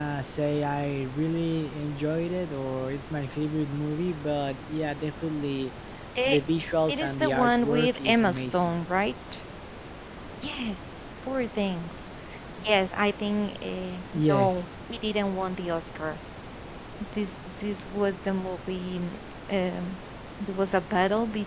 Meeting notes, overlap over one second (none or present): present